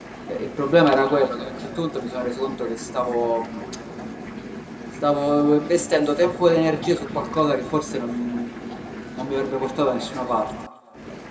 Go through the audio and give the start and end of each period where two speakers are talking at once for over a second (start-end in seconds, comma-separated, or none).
none